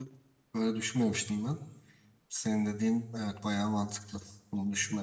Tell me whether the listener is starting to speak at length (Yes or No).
Yes